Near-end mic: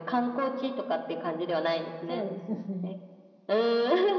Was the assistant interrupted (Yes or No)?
Yes